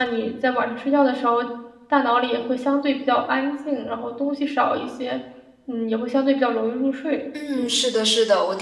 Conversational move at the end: taking over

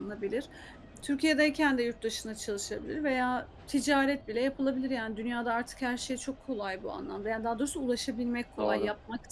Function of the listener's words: listening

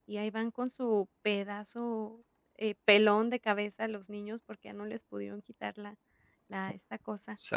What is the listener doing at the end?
taking over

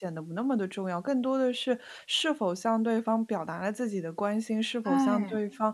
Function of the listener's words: listening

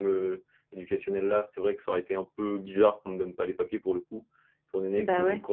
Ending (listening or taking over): listening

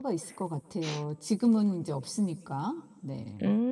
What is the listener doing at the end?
taking over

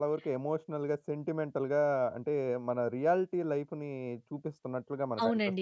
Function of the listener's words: taking over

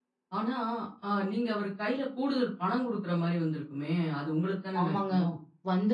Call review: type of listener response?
taking over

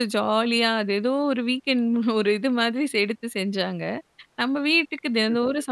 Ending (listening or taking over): listening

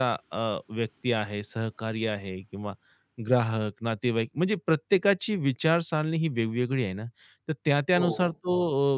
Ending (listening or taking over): listening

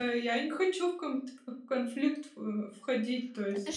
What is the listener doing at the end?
taking over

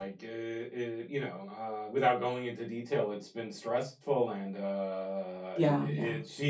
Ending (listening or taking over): listening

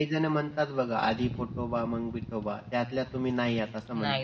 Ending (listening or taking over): taking over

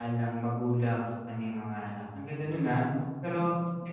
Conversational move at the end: listening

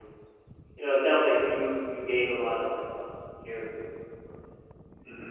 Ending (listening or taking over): taking over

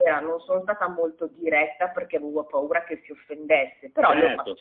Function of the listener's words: taking over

